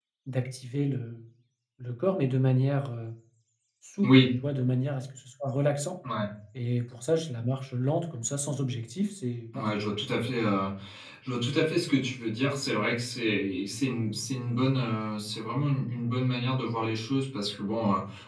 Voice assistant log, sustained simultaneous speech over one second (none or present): none